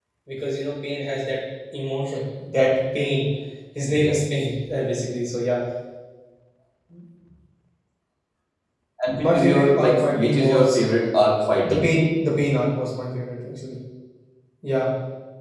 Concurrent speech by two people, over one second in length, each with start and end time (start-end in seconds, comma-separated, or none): 9.2-10.8